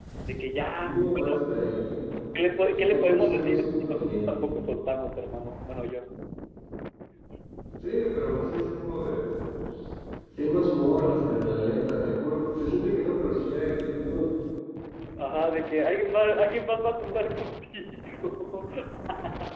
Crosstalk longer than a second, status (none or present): present